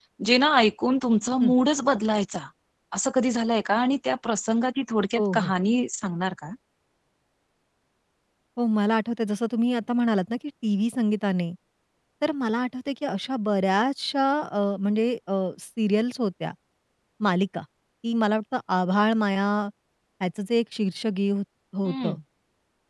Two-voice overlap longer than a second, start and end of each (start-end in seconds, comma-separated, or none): none